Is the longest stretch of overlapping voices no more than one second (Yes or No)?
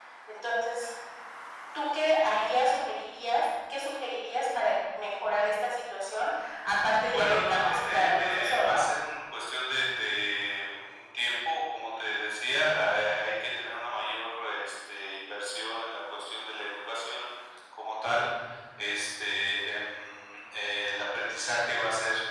No